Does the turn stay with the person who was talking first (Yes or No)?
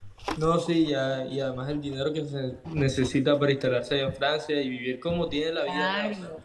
No